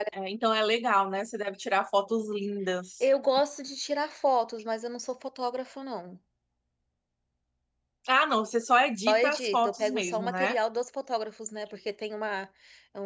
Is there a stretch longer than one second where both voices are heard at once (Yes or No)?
Yes